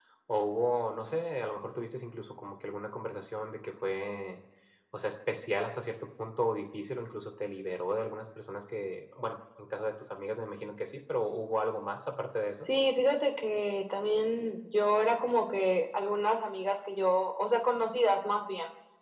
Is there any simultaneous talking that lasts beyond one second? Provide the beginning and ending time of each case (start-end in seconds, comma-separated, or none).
none